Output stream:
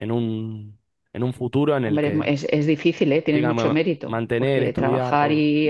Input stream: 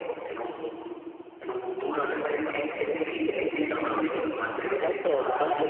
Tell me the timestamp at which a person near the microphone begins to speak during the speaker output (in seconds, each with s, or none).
4.8 s